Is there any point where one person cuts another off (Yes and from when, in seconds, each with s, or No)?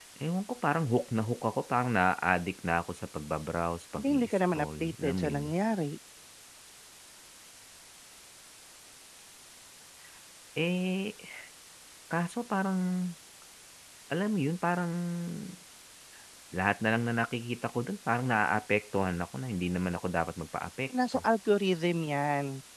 Yes, from 4.0 s